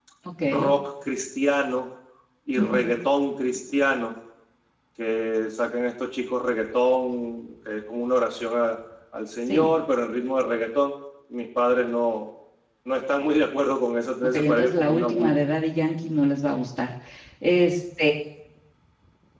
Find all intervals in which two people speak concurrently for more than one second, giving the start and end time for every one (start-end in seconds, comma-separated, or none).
14.2-15.4